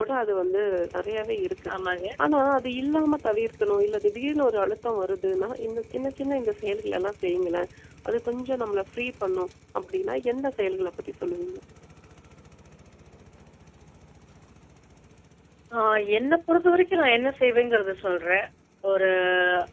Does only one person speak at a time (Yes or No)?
Yes